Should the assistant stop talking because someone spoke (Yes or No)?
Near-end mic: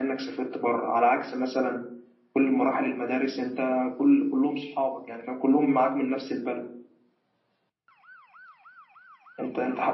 Yes